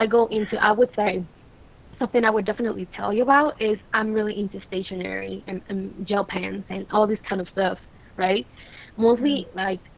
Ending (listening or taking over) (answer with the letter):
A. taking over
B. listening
B